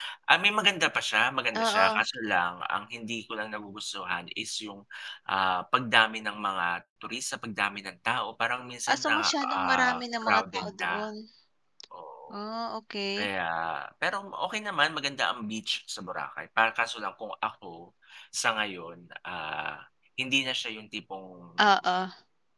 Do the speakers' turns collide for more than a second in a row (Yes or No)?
Yes